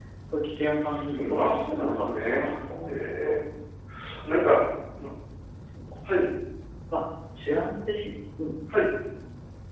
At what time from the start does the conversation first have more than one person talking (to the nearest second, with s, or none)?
1 s